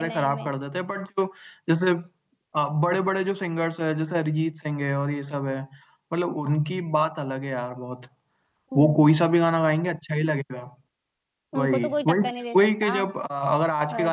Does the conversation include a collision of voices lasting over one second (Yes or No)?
Yes